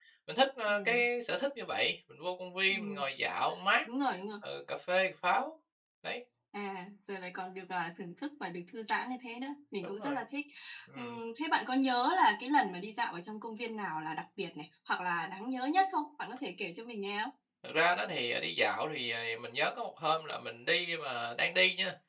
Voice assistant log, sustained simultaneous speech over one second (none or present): none